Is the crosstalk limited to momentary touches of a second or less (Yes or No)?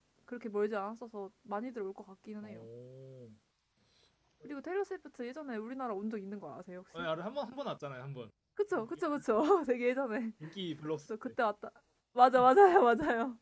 Yes